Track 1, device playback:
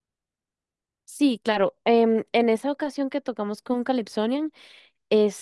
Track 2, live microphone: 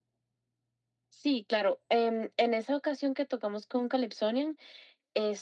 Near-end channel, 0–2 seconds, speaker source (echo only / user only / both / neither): echo only